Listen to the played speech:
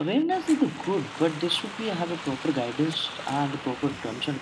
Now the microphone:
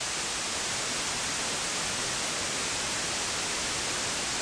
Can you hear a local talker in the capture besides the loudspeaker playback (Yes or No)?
No